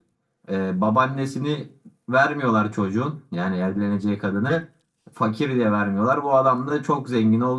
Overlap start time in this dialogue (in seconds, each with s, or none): none